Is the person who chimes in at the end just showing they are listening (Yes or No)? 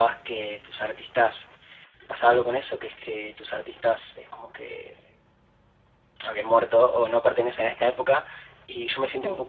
Yes